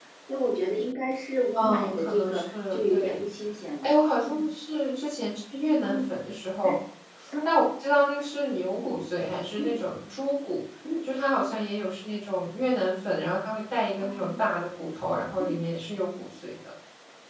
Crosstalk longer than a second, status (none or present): present